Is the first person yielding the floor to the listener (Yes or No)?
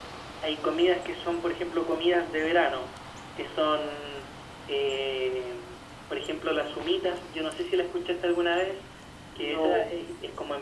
No